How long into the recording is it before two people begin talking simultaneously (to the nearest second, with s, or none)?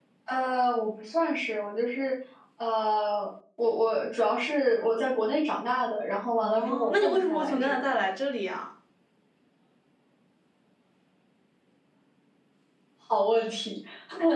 6 s